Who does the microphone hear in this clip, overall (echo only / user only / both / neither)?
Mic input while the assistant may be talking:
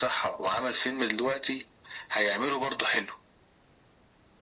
echo only